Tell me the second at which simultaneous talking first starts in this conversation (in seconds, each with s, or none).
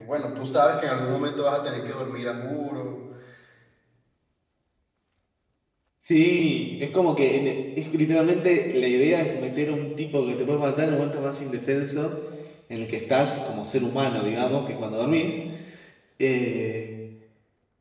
none